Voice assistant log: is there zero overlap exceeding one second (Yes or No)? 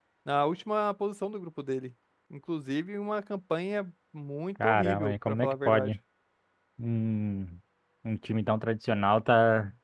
No